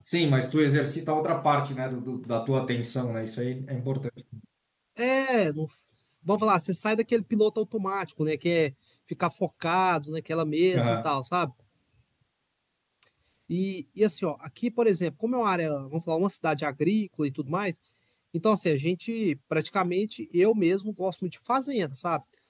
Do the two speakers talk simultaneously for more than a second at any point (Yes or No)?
No